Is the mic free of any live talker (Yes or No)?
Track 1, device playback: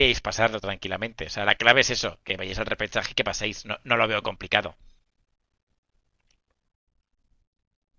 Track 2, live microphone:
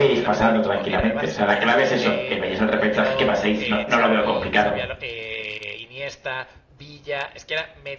No